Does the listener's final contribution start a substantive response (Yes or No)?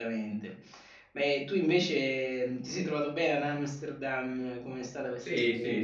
Yes